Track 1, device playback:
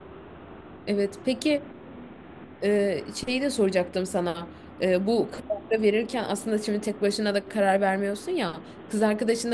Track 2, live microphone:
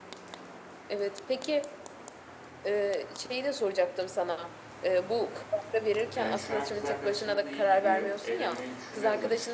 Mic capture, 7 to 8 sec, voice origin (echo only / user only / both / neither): both